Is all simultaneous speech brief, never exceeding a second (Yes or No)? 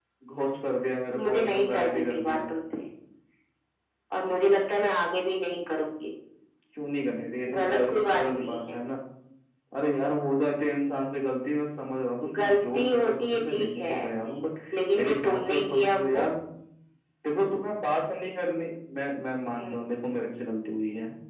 No